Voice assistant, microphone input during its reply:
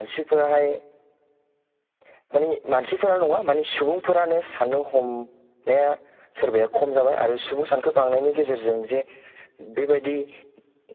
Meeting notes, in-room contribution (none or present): none